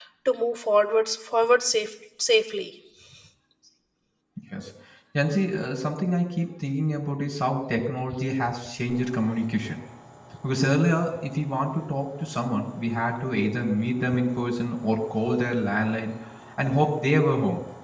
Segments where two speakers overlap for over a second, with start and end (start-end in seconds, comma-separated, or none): none